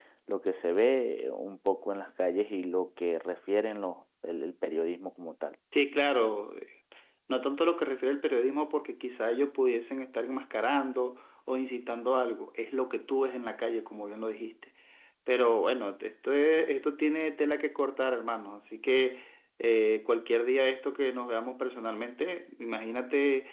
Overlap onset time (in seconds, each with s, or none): none